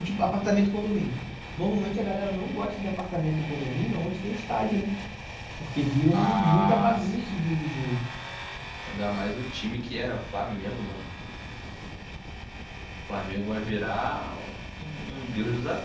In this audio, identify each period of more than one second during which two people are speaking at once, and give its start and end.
6.1-7.5

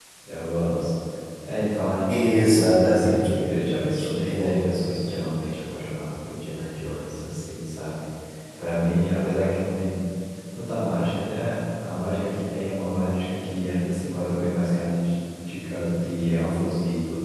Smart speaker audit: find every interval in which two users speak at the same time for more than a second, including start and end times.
2.1-5.1

